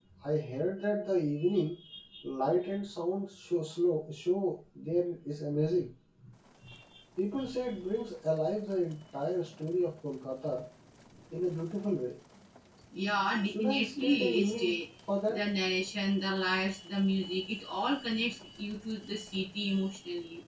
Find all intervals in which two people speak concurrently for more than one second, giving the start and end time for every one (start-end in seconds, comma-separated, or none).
13.4-14.8